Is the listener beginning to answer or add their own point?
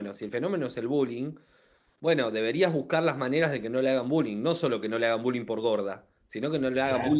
No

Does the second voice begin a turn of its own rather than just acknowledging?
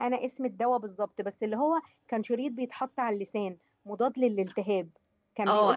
Yes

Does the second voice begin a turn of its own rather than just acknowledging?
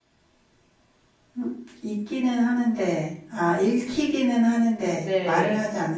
Yes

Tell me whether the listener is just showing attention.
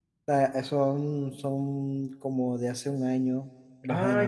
No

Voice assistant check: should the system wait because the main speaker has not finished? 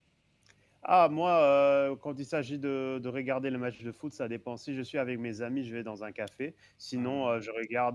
Yes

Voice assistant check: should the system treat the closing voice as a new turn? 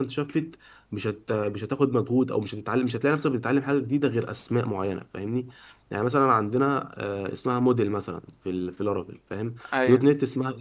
No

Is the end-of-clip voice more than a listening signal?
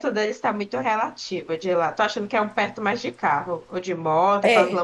Yes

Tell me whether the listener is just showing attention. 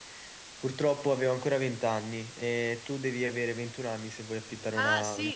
No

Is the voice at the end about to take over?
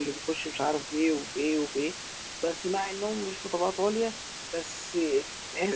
No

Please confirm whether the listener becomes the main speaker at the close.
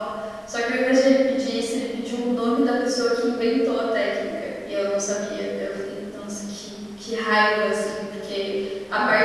No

